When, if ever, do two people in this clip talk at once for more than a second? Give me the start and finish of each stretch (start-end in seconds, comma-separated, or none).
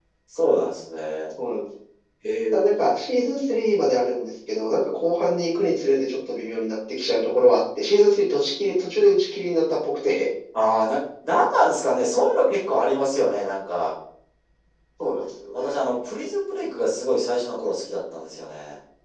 none